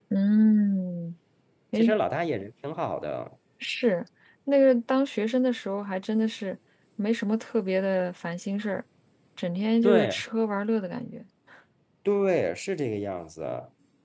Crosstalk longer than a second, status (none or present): none